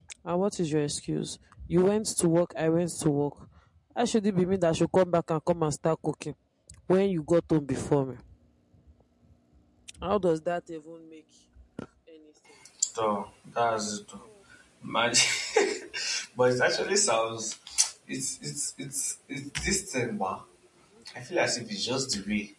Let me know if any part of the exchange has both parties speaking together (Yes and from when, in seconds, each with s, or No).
No